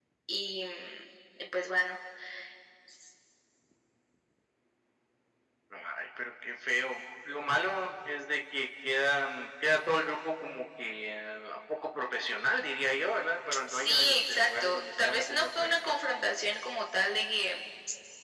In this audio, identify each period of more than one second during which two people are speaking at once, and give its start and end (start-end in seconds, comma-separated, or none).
13.7-15.9